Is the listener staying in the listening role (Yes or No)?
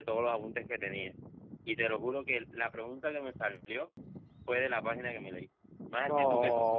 No